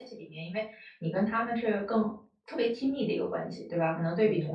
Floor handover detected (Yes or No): No